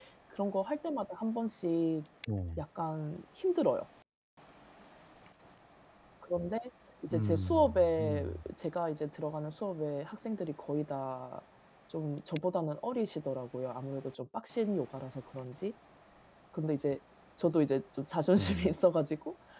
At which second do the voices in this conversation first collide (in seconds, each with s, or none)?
7.1 s